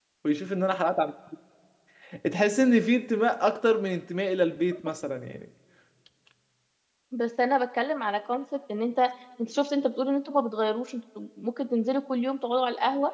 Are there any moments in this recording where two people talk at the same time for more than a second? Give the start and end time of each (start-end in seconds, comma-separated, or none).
none